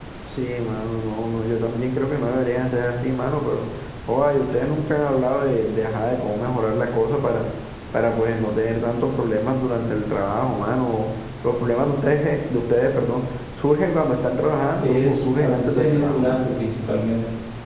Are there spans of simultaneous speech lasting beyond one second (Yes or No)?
Yes